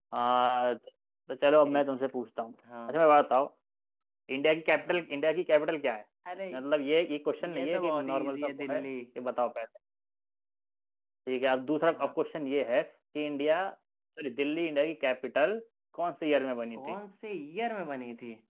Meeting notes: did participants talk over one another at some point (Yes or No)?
Yes